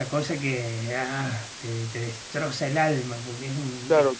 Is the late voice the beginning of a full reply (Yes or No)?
Yes